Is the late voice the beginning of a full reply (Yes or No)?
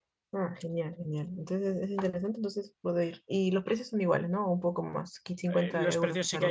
Yes